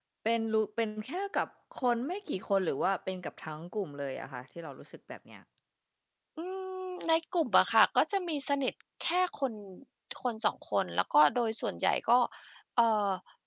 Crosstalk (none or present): none